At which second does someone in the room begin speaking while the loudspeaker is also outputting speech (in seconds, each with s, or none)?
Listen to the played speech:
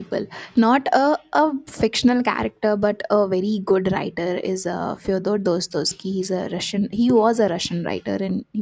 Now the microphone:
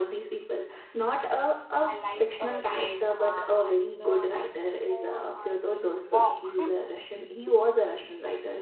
1.8 s